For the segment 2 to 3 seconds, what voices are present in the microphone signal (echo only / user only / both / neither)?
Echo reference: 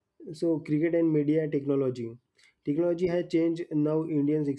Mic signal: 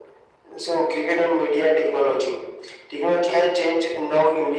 echo only